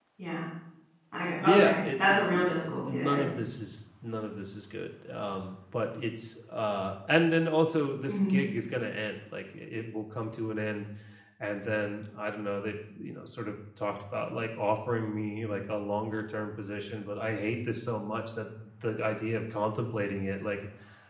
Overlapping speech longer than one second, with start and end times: 1.4-3.2

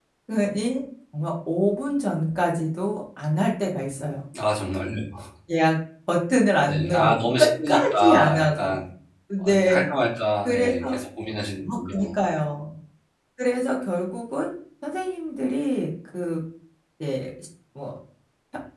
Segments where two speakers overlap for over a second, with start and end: 6.7-8.8

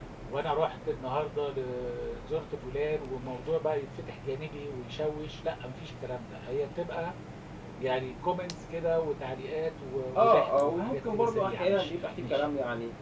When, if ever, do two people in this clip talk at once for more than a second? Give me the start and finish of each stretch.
10.2-12.5

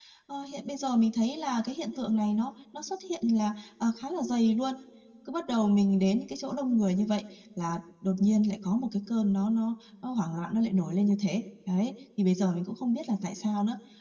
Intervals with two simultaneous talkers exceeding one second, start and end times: none

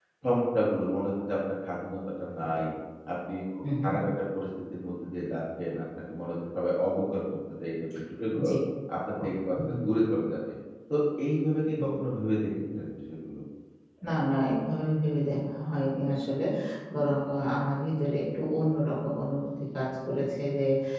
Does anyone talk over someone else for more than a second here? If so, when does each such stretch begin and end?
none

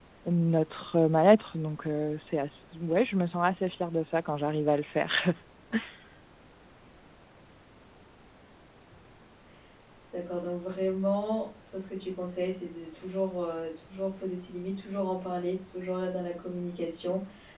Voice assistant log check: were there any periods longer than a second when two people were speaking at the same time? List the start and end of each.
none

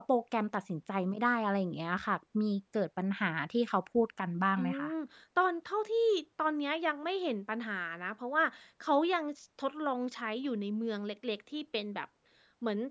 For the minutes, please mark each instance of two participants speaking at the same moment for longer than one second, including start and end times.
none

